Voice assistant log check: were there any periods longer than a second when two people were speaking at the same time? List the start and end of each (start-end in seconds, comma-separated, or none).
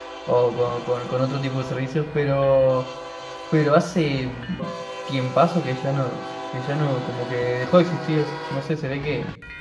none